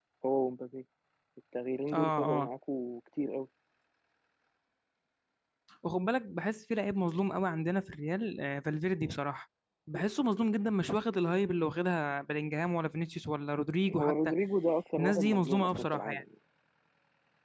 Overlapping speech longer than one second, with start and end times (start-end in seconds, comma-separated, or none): 15.0-16.2